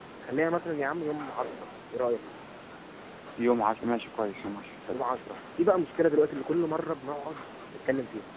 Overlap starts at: none

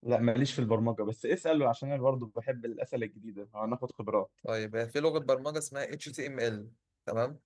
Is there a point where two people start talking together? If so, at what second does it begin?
none

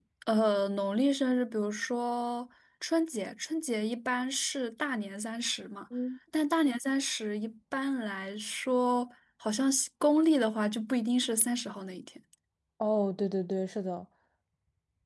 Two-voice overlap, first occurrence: none

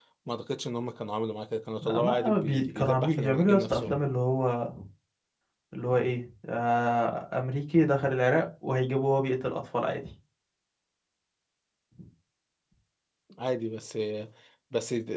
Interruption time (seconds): 2 s

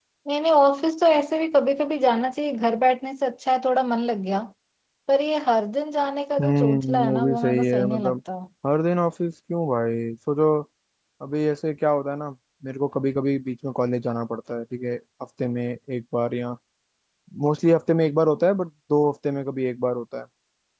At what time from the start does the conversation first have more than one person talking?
6 s

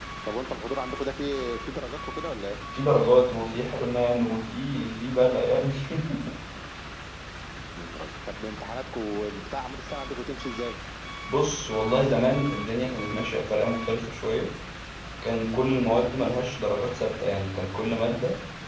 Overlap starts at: none

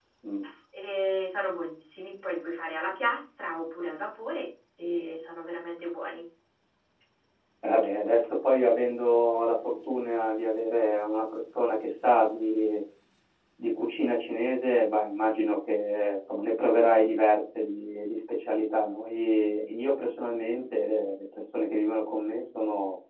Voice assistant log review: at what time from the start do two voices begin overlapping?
none

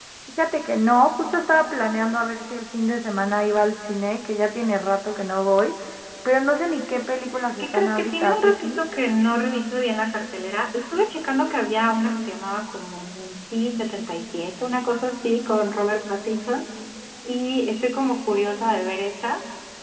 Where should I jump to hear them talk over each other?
8 s

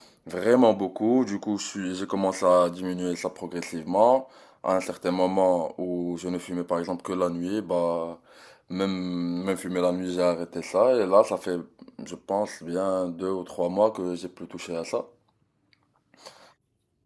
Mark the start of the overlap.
none

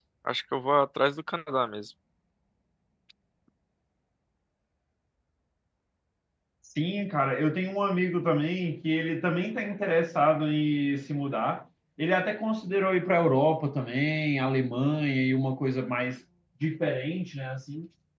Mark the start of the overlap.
none

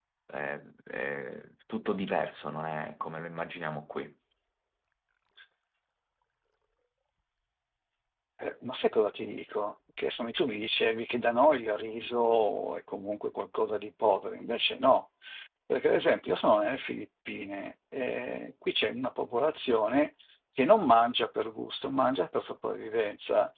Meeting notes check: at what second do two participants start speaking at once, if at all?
none

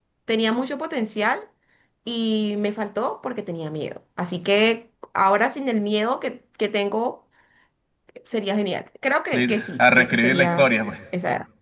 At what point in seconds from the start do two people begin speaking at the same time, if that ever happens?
9 s

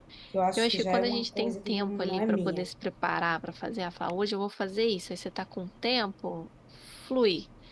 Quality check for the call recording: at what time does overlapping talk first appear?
1 s

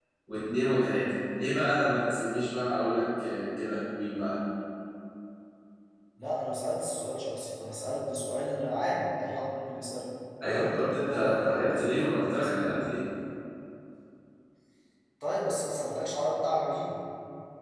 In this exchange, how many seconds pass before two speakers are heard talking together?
10 s

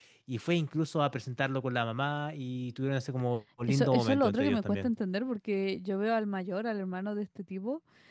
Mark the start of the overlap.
4 s

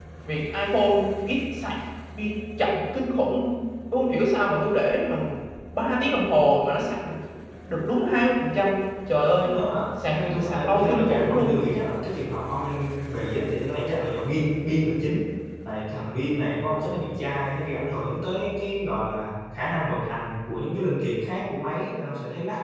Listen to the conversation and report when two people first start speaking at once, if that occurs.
10 s

